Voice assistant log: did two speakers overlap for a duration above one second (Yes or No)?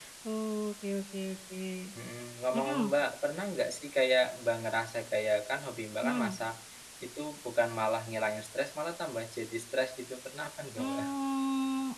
No